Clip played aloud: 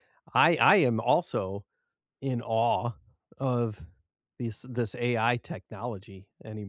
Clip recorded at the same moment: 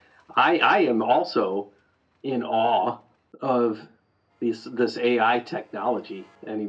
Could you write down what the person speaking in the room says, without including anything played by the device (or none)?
none